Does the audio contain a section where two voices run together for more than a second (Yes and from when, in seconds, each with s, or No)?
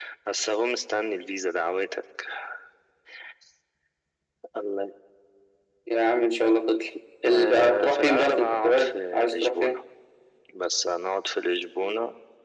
Yes, from 7.2 s